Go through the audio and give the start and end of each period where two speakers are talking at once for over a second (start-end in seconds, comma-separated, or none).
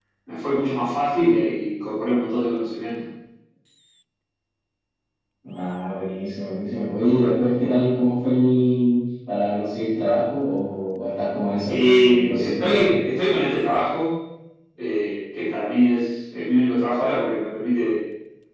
11.7-12.9